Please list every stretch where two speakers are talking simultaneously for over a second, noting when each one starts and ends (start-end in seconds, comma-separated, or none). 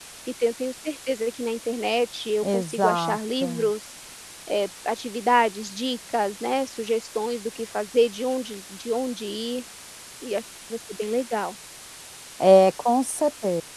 2.4-3.7